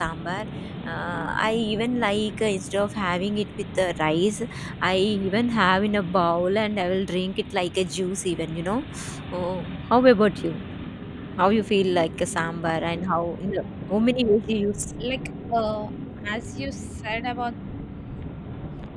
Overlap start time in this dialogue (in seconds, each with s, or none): none